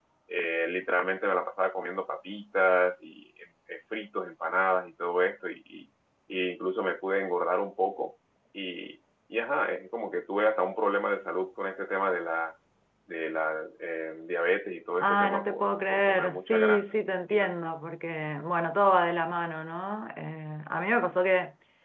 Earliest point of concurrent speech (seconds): 15.0 s

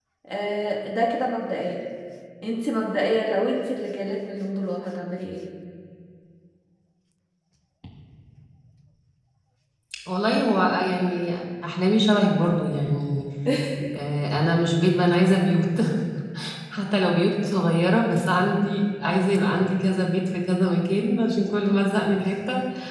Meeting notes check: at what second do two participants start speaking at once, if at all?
none

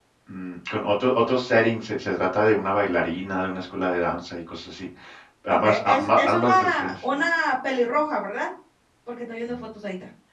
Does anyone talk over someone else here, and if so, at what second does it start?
5.5 s

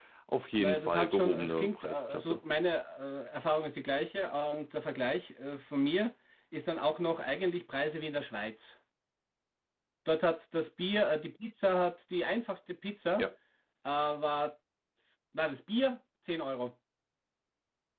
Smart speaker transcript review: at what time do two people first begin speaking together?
0.6 s

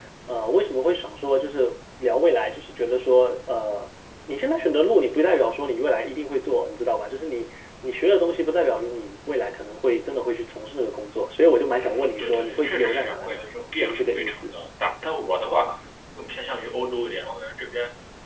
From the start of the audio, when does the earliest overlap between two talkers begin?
11.8 s

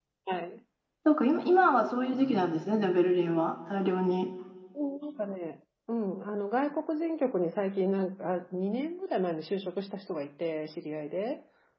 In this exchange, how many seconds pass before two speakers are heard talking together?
none

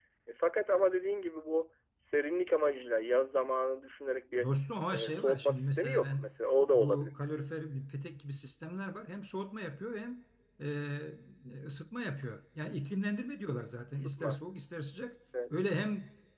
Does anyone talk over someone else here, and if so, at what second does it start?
4.9 s

